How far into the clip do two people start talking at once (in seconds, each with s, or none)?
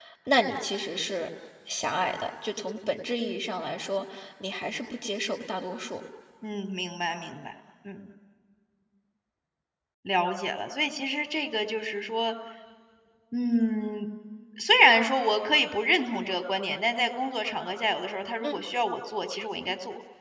none